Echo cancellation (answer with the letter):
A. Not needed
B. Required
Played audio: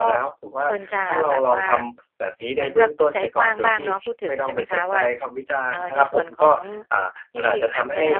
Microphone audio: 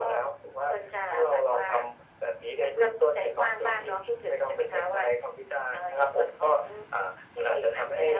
B